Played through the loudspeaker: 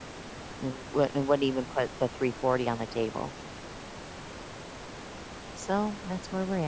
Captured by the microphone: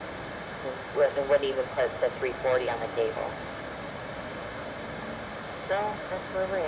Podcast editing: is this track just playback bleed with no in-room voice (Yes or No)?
Yes